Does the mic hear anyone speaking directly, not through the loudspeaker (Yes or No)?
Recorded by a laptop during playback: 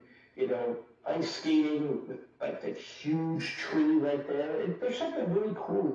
No